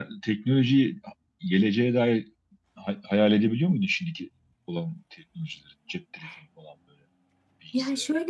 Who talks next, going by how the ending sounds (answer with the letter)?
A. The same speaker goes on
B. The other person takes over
B